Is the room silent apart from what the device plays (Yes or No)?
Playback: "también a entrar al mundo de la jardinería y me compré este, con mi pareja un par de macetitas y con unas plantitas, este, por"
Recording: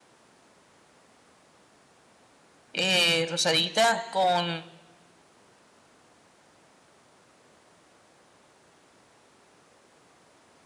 No